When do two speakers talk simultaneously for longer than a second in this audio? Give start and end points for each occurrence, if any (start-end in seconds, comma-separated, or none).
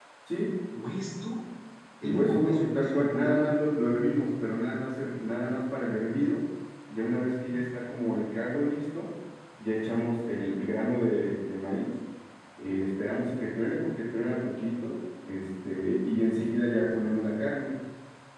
2.0-3.4